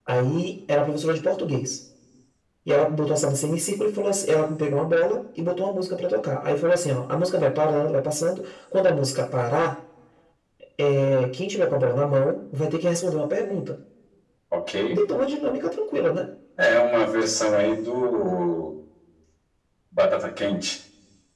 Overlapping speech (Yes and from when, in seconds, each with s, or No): No